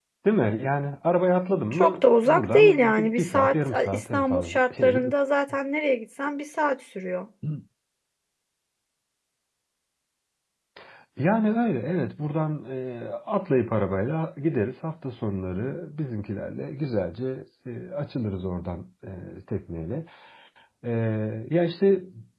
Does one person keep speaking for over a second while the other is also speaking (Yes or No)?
Yes